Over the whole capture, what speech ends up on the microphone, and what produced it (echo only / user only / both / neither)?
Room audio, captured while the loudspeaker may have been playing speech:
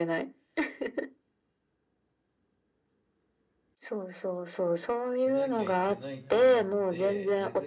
both